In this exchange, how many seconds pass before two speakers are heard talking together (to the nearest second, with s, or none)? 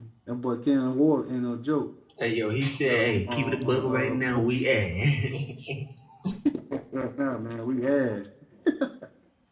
3 s